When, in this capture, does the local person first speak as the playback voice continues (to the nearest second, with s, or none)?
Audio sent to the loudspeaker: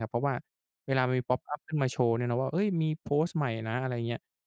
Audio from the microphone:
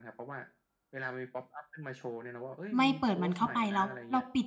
3 s